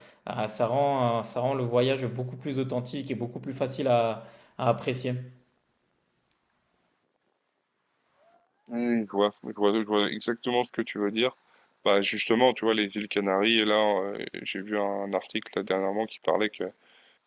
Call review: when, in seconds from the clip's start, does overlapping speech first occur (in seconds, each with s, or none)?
none